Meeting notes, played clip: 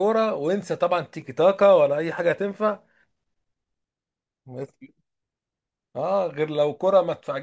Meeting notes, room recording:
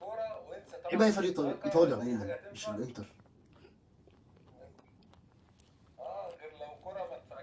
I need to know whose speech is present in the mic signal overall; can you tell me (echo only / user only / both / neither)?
both